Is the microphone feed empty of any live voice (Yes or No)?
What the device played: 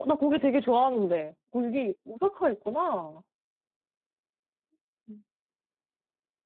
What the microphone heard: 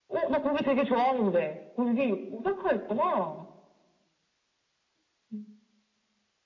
Yes